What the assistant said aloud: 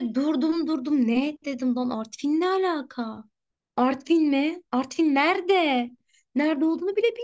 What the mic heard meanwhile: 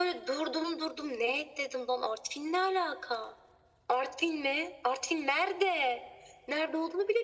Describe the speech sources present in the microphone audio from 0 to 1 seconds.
echo only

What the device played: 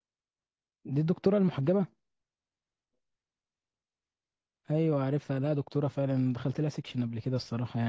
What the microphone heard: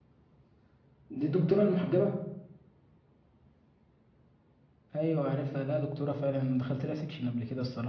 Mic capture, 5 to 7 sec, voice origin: echo only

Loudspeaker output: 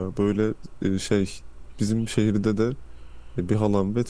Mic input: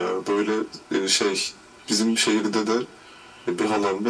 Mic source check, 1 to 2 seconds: echo only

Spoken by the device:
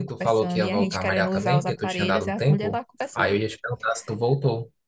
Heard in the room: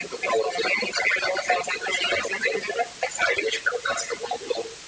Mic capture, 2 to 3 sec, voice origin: echo only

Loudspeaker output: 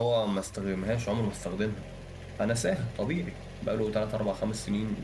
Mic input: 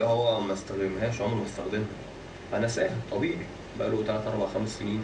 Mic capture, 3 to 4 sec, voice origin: echo only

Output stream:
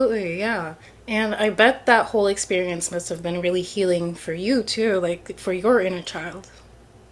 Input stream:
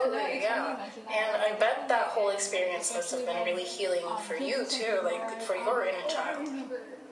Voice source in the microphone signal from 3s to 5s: both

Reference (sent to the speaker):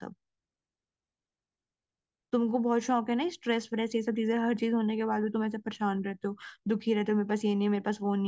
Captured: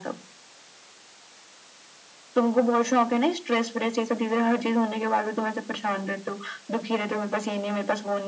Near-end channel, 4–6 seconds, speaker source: echo only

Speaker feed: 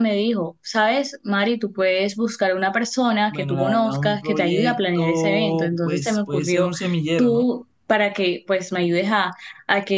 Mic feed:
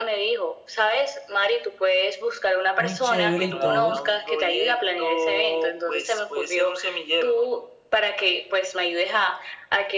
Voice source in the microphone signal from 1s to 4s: both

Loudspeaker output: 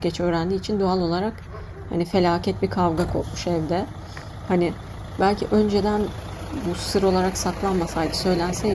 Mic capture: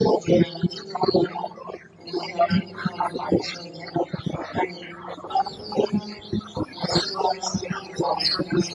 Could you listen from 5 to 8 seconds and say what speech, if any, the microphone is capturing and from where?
echo only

